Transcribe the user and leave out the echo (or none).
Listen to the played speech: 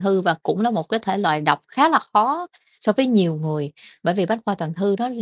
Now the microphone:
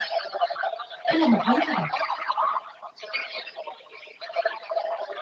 ý là một hướng thôi bạn.